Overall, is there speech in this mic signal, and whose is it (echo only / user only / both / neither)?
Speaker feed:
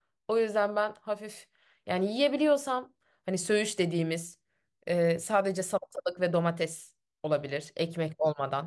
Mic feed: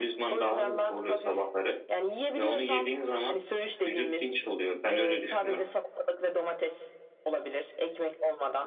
both